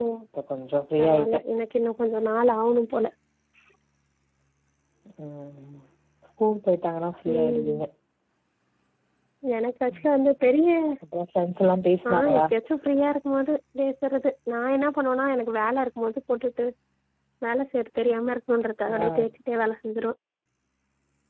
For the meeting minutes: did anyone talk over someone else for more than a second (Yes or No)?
No